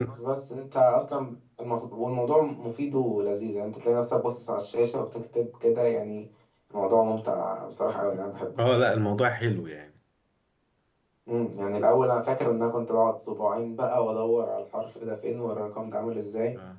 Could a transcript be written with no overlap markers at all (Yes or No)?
Yes